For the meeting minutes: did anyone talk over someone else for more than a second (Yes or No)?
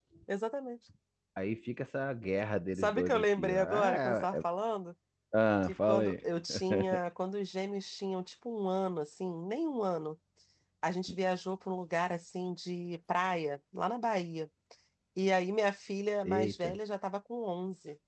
Yes